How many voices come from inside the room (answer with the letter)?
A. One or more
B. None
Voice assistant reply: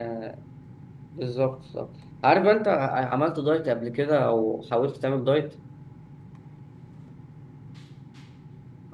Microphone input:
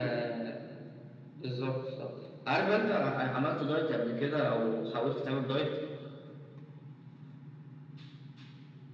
B